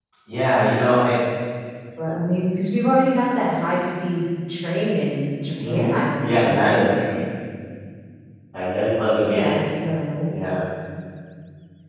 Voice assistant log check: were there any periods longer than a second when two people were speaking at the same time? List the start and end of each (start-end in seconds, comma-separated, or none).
5.6-6.8